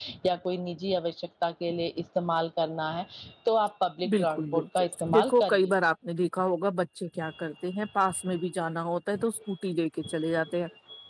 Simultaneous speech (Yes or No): Yes